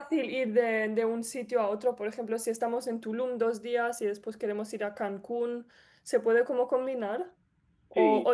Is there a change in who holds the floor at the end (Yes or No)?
No